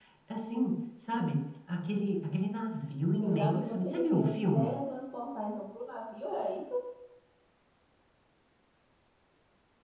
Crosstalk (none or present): present